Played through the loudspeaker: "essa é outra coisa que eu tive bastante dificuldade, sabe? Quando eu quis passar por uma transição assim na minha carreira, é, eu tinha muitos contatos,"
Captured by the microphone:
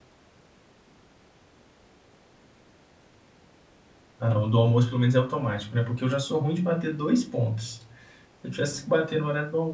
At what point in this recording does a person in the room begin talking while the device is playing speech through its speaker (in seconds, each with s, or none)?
4.2 s